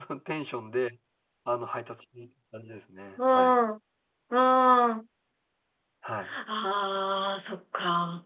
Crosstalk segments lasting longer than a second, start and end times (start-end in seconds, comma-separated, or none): none